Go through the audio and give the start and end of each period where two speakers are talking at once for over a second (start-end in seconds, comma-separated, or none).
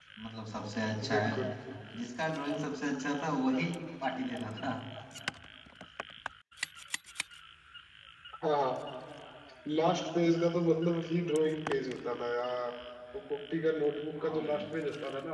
none